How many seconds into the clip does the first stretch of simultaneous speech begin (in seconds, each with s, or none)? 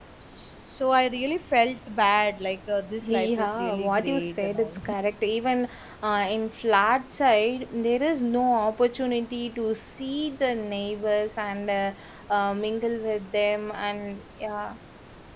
3.0 s